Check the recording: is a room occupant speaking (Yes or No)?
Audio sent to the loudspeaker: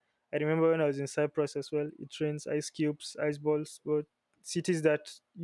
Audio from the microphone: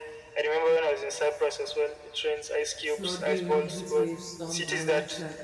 Yes